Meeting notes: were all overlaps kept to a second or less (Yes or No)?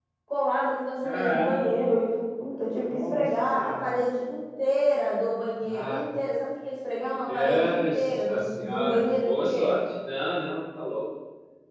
No